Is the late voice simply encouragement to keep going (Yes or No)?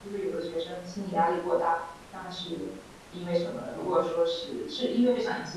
No